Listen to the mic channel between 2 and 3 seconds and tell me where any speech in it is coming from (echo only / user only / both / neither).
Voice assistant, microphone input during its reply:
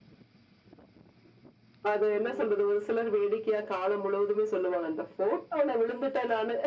both